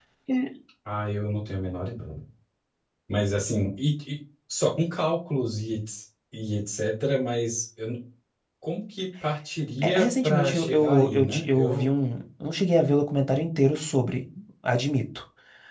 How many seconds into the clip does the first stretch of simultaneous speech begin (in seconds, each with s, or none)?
9.8 s